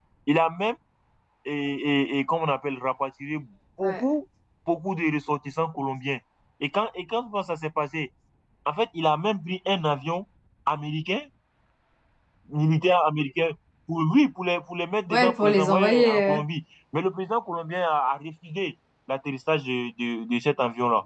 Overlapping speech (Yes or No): Yes